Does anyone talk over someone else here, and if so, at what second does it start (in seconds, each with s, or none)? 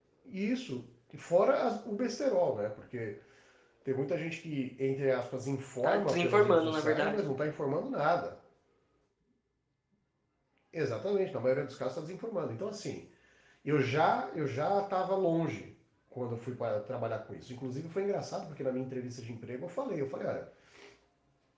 5.8 s